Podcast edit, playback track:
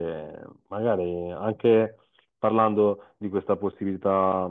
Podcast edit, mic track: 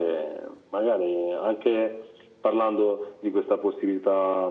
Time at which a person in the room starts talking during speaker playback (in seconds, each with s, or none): none